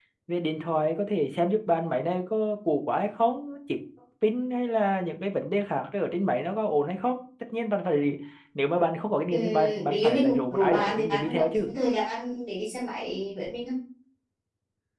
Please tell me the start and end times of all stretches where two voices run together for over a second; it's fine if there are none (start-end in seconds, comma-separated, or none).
9.3-11.7